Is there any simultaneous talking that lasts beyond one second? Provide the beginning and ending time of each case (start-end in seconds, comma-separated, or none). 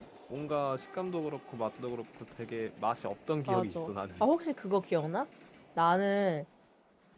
none